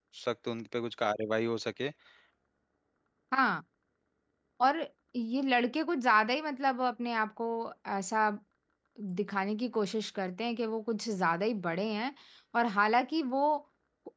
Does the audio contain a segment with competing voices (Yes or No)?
No